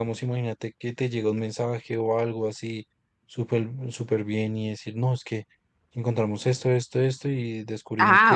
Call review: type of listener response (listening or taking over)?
taking over